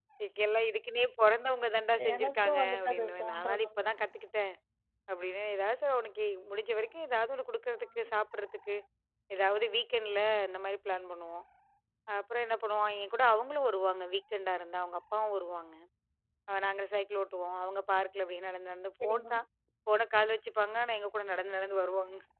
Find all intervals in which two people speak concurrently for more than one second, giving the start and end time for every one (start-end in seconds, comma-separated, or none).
2.1-3.9